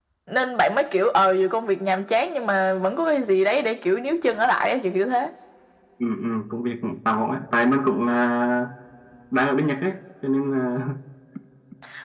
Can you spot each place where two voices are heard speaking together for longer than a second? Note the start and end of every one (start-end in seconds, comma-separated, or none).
none